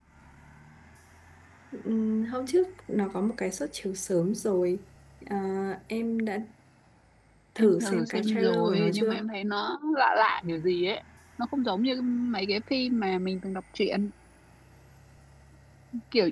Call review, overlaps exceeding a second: present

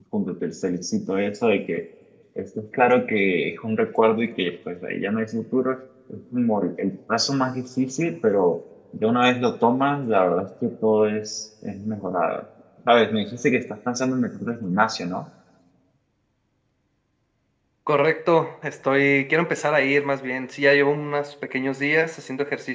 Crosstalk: none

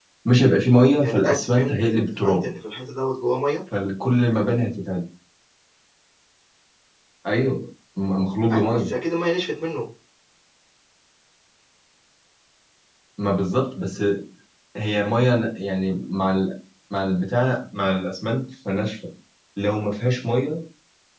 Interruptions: present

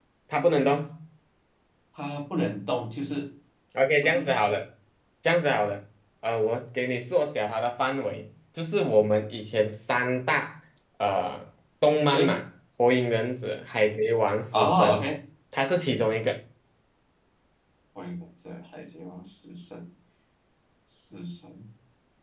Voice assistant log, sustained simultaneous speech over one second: none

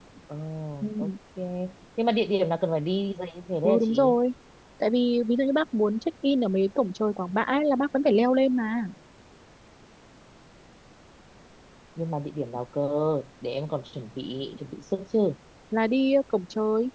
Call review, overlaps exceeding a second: none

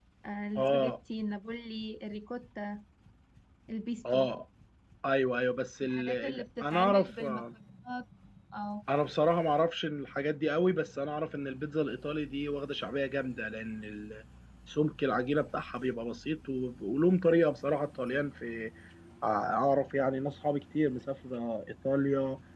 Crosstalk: present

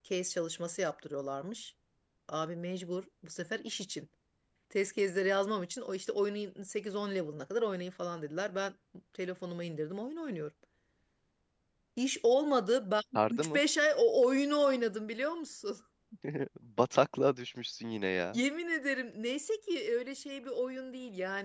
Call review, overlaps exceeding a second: none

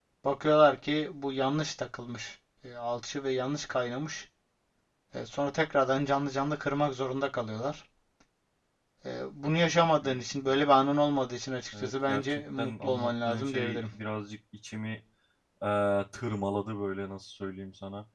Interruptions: present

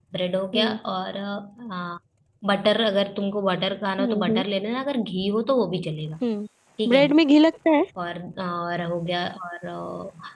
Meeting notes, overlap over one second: none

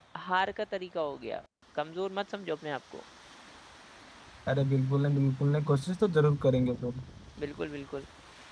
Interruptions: none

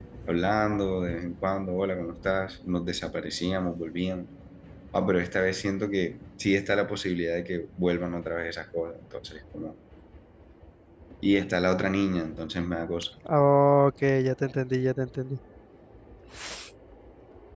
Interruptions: none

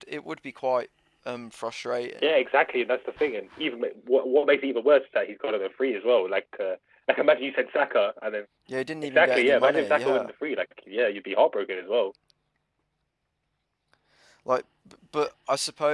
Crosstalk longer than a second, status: present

